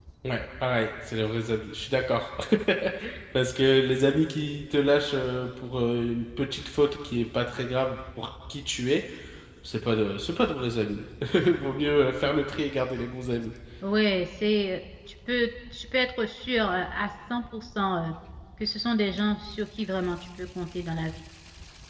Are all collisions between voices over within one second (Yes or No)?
Yes